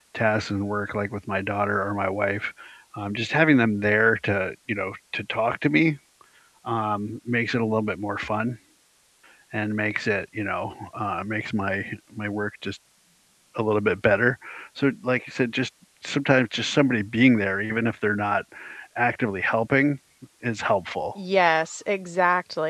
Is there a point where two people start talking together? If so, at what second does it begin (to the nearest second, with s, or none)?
none